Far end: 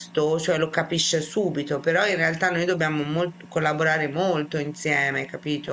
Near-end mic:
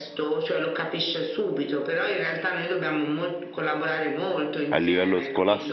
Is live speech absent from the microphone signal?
No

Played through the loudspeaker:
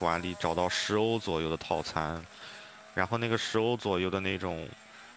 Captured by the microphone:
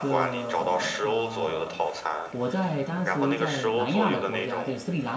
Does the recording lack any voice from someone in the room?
No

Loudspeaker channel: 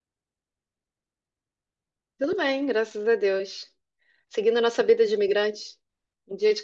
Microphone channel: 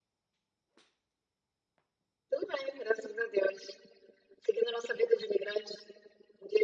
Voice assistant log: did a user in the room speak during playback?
No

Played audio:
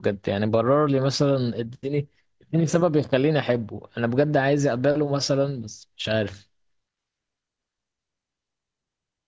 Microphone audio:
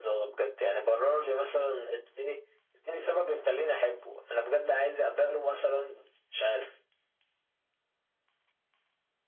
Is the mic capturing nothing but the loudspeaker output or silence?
Yes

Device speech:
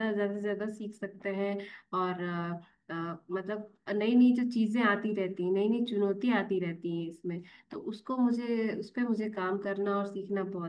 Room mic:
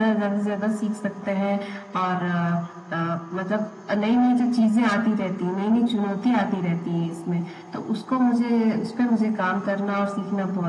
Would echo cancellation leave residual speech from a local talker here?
No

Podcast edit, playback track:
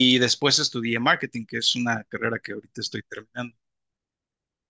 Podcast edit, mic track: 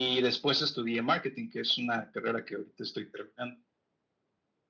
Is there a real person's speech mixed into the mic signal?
No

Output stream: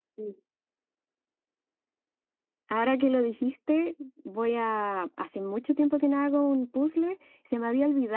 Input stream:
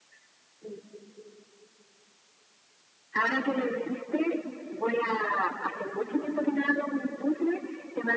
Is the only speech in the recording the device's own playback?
Yes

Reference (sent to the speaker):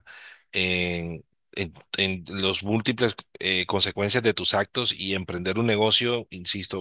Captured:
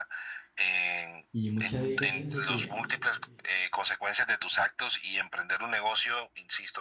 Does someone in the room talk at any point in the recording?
Yes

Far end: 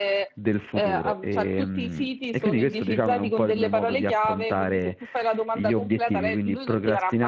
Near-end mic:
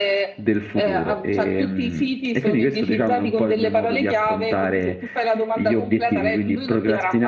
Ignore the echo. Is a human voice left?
No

